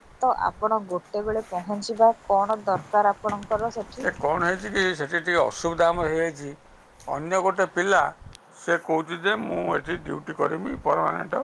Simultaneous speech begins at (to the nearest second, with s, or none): none